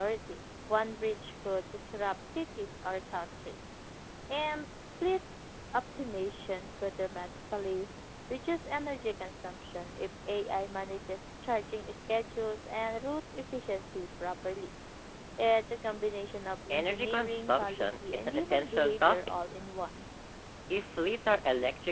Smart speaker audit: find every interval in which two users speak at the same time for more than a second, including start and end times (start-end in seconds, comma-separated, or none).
16.7-19.2